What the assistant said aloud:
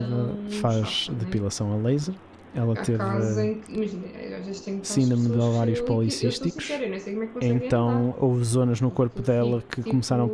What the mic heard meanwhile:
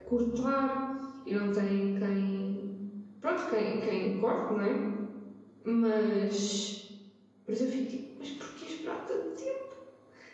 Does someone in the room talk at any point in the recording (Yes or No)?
Yes